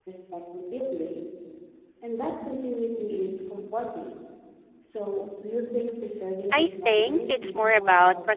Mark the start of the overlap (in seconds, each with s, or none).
6.5 s